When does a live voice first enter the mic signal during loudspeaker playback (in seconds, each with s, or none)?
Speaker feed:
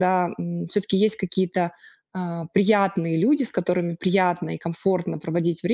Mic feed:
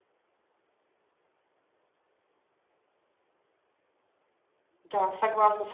4.8 s